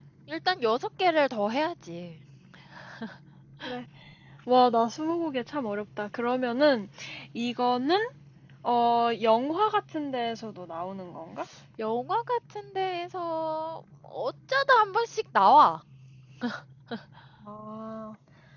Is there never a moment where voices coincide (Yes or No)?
Yes